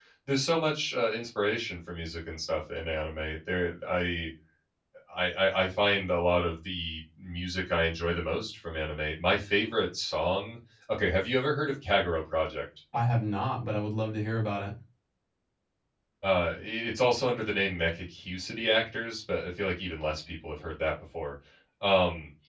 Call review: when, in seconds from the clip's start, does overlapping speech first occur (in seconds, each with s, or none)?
none